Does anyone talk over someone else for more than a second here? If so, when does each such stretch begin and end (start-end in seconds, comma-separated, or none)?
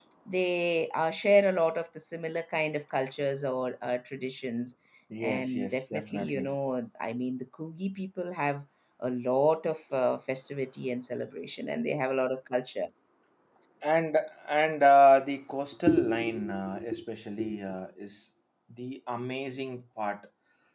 5.2-6.5